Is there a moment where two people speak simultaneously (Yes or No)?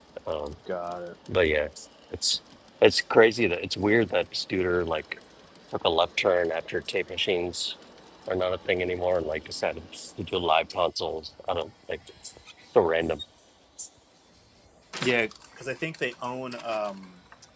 No